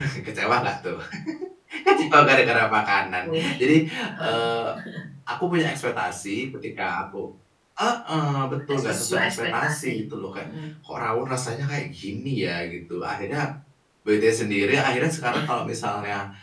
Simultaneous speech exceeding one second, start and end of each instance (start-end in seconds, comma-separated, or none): 8.7-9.9